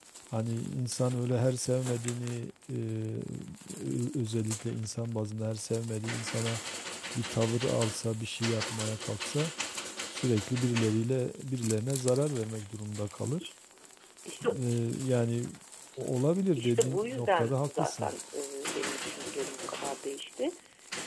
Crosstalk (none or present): present